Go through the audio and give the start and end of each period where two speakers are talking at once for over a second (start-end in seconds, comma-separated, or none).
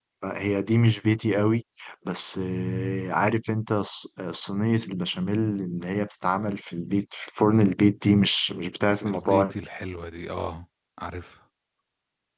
none